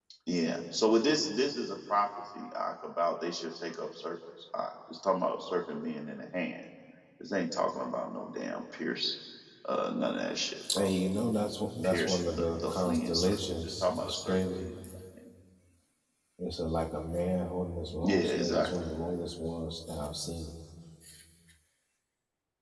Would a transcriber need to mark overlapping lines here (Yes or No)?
Yes